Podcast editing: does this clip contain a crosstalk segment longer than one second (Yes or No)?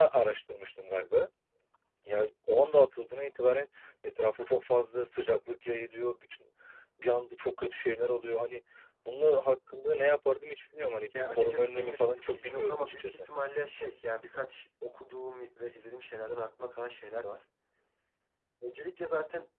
Yes